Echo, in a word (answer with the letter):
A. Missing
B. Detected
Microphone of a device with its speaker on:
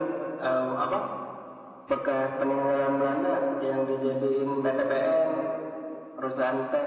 B